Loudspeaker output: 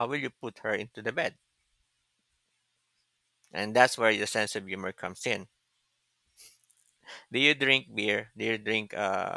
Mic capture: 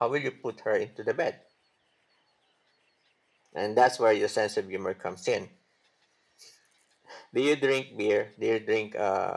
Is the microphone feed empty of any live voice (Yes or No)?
Yes